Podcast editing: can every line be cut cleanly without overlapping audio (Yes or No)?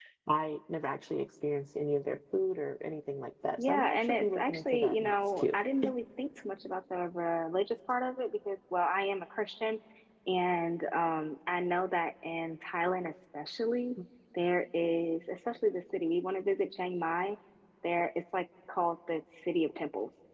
No